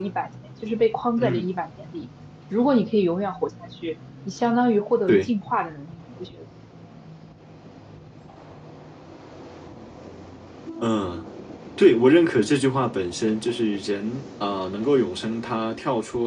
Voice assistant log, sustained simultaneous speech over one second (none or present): none